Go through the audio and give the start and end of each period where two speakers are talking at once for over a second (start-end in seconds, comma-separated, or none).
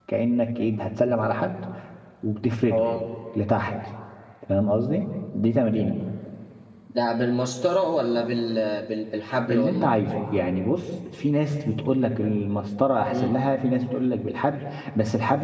none